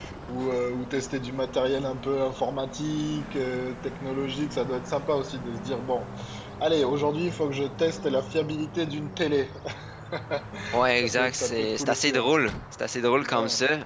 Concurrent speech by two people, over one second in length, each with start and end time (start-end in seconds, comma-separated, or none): 11.0-12.3